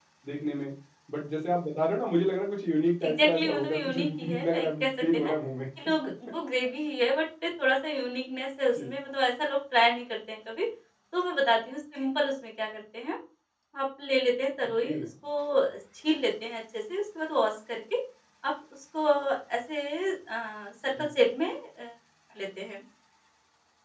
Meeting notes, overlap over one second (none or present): present